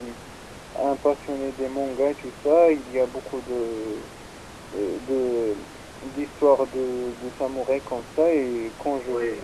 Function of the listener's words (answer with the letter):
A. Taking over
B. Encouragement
B